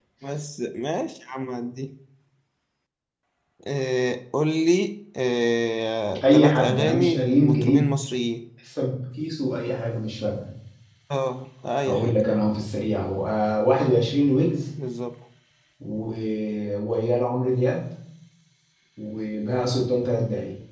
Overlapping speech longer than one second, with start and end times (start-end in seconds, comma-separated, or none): 6.2-7.9